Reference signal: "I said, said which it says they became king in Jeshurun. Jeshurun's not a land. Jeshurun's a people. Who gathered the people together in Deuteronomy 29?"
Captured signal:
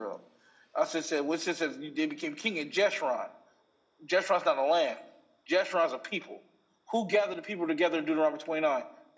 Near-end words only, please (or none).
none